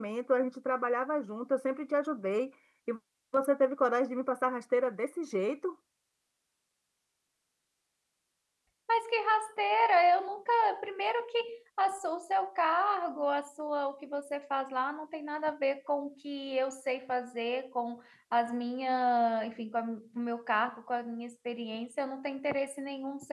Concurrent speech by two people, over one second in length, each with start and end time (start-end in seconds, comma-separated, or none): none